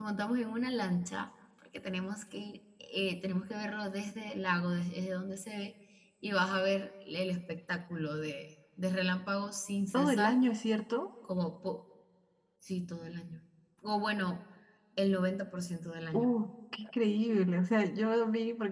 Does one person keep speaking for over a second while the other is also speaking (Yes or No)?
No